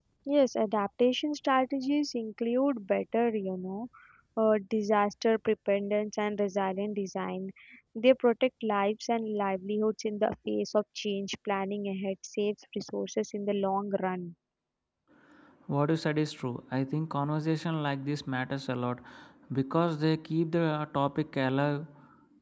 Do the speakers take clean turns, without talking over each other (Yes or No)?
Yes